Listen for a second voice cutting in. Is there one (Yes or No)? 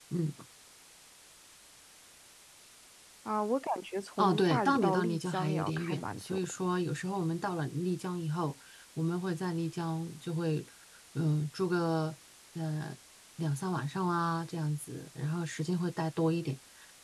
Yes